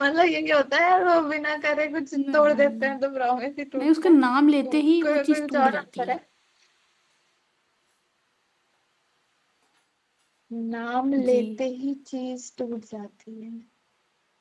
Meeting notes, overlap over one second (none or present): present